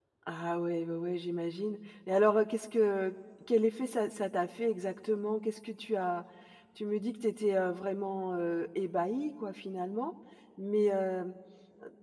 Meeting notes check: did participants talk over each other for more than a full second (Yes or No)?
No